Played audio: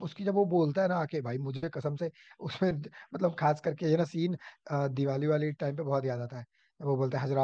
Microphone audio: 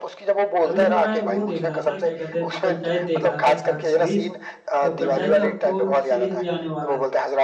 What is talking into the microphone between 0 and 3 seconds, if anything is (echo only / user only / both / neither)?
both